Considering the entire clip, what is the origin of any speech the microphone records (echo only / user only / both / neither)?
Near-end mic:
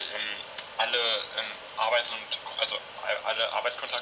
echo only